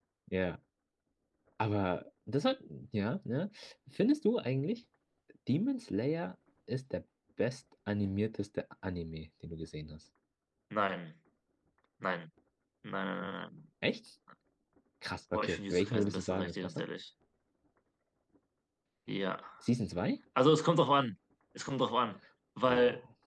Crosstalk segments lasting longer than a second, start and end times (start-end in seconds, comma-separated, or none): 15.3-16.8